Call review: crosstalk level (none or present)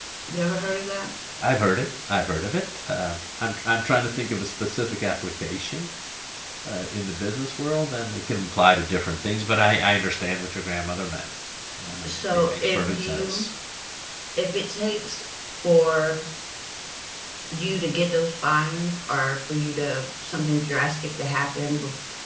present